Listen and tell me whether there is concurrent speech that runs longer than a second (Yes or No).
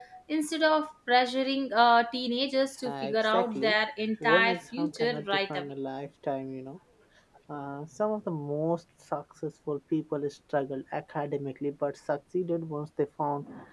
Yes